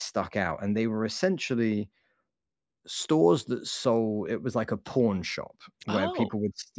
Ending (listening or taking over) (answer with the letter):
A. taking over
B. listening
B